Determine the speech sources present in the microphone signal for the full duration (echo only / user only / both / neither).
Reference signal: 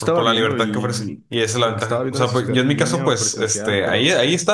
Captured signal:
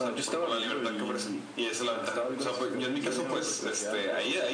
both